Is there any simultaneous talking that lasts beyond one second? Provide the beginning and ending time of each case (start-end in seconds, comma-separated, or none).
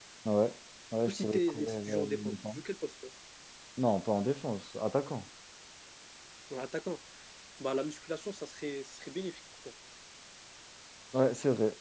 1.1-2.6